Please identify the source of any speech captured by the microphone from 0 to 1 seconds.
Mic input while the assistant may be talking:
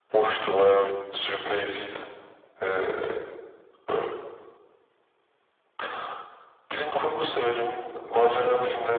echo only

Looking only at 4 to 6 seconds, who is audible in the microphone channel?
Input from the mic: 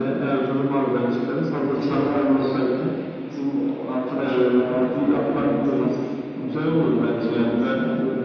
echo only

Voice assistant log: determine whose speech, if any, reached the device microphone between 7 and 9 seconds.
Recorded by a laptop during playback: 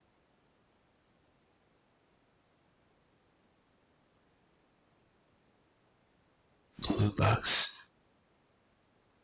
user only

